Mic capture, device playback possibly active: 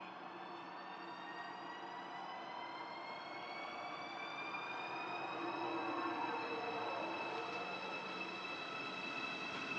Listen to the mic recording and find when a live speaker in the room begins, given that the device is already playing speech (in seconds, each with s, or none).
none